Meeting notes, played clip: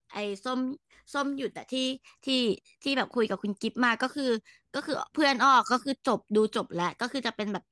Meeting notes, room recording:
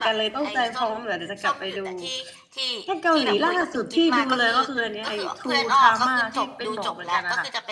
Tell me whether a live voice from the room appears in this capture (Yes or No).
Yes